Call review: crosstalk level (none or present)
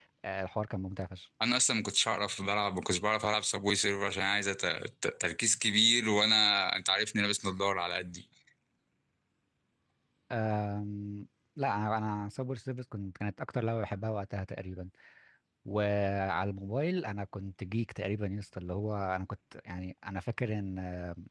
none